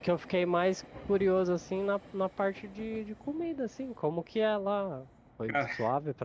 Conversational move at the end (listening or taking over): listening